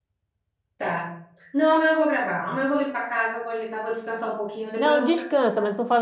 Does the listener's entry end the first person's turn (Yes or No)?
Yes